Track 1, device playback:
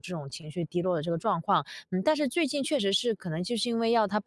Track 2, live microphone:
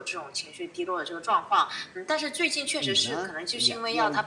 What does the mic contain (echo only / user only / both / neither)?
both